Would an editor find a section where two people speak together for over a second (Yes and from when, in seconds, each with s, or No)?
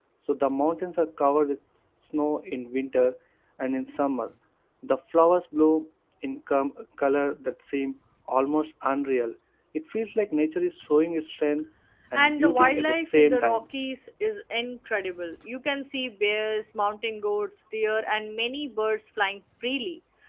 Yes, from 12.1 s